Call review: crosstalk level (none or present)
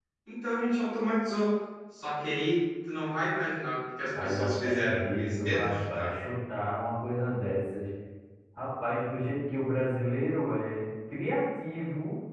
present